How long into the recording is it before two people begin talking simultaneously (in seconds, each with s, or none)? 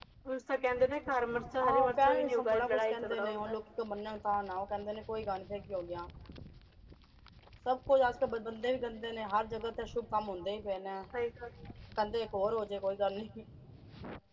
1.6 s